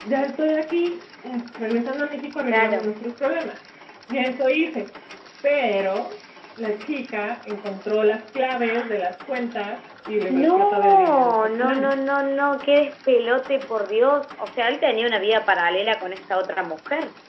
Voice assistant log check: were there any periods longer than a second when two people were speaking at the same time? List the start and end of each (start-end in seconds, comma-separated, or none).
10.4-11.9